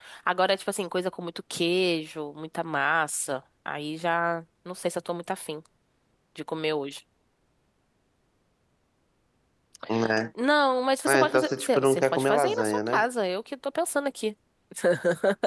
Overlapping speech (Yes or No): Yes